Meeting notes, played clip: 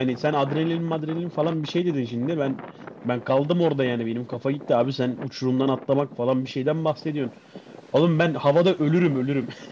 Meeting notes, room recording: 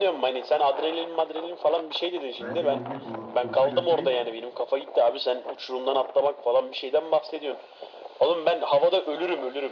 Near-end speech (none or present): present